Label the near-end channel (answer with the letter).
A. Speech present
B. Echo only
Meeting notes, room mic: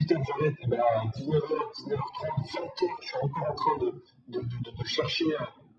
B